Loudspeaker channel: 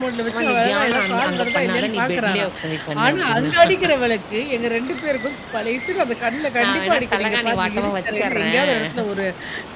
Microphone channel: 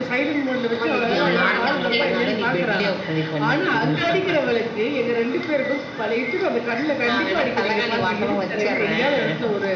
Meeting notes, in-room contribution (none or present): present